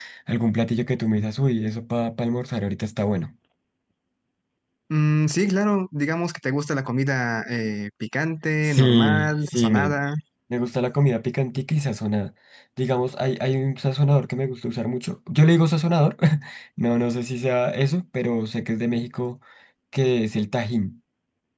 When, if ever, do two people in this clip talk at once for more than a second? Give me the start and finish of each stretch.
8.7-10.0

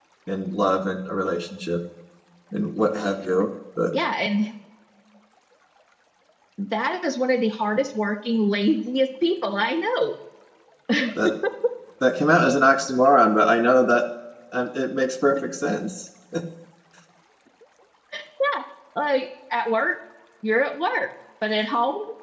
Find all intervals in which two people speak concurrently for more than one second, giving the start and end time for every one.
none

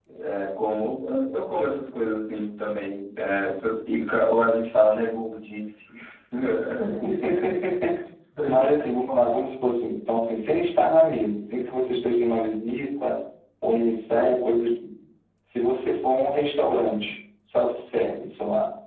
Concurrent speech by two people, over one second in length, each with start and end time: none

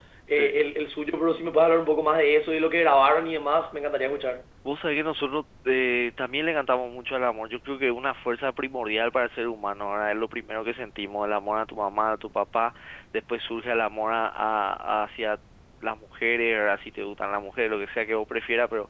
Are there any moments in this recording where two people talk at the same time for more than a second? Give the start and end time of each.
none

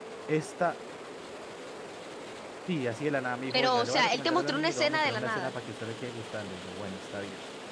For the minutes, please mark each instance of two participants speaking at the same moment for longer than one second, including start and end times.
3.5-5.5

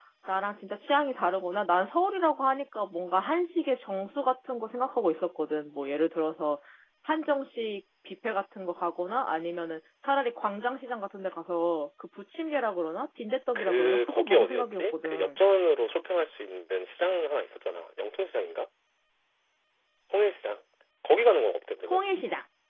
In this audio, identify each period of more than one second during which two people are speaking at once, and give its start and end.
13.6-15.4

